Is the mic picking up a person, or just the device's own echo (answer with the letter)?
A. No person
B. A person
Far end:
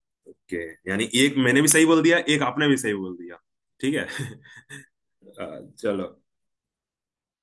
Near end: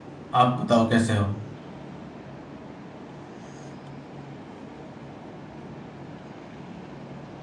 B